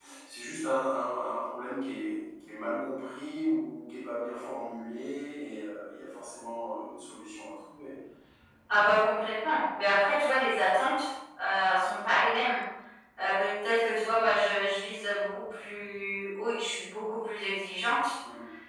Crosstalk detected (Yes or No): No